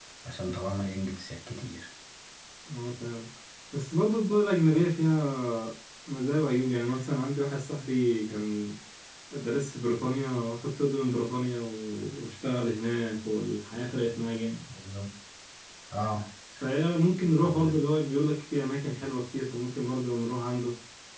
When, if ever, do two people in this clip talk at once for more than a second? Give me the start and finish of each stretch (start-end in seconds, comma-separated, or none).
none